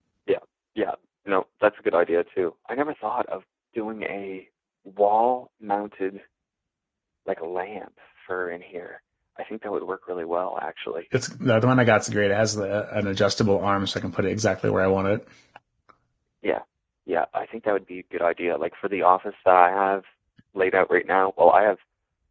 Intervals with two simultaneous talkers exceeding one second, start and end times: none

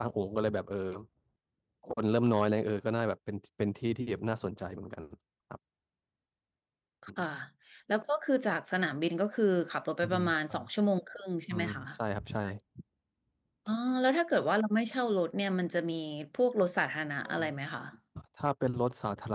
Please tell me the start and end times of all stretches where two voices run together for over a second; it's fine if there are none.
none

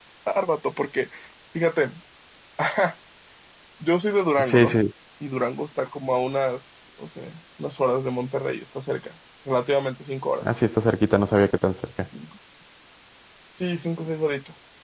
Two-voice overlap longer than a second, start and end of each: none

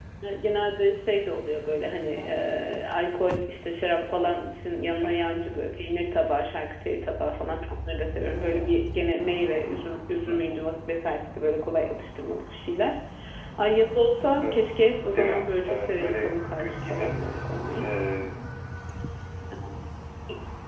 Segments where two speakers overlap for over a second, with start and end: 15.2-17.1

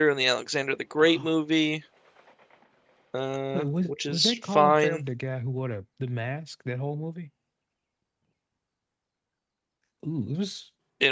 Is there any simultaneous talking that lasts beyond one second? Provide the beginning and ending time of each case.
3.5-5.0

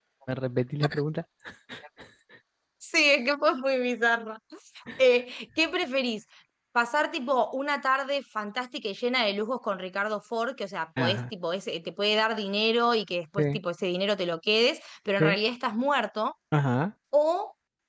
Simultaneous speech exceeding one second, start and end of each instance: none

